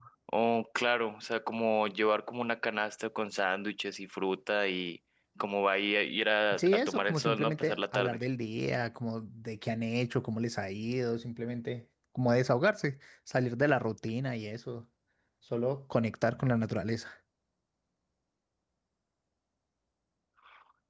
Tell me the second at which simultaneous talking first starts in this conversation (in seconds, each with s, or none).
6.5 s